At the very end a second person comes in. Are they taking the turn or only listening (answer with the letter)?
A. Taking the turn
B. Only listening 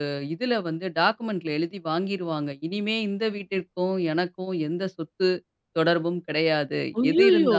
B